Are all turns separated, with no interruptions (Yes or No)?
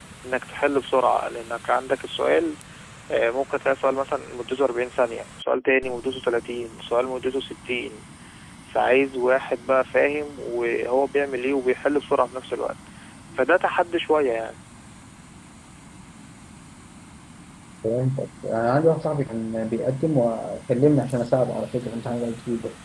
Yes